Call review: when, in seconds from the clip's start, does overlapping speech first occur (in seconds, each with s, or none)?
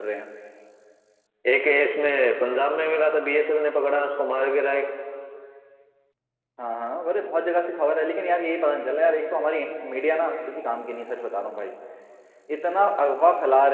none